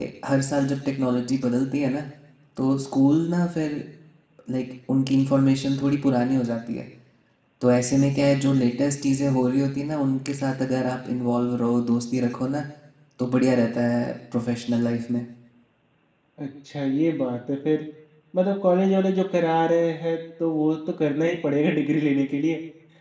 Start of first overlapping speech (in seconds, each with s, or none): none